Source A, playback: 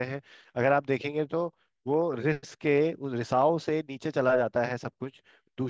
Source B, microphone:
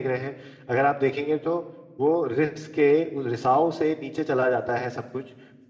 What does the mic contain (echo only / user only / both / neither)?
echo only